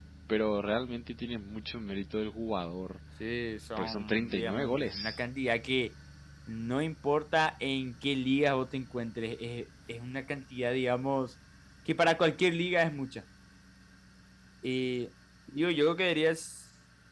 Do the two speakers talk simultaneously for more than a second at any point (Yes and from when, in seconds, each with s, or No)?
Yes, from 3.8 s